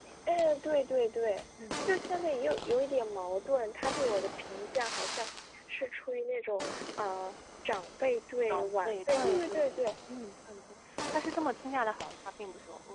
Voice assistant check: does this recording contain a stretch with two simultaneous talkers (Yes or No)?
Yes